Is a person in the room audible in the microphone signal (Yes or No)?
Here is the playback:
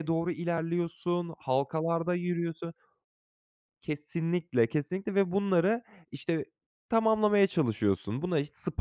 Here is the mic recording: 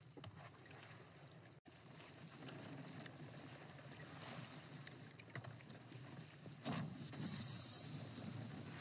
No